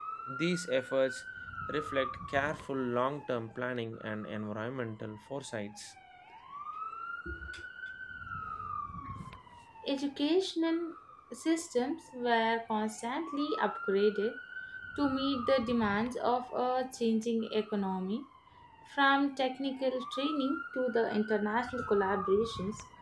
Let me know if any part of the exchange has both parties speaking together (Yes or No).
No